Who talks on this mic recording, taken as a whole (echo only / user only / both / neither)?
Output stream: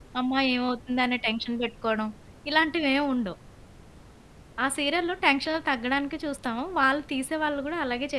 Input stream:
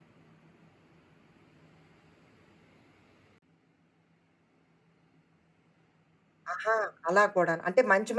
user only